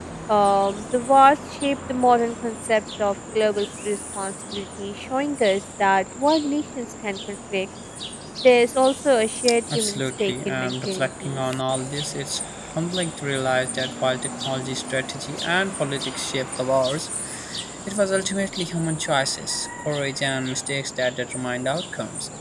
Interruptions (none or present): present